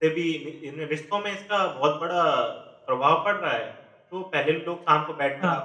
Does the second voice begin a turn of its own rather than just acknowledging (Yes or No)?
No